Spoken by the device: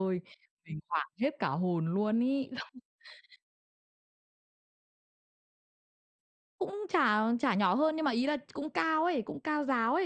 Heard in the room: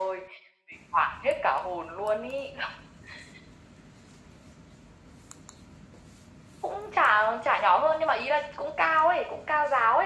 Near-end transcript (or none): none